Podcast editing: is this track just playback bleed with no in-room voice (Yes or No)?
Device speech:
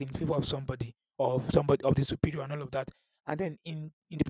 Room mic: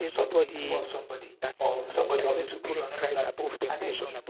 No